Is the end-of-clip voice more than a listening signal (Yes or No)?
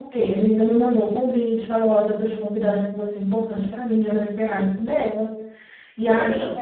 No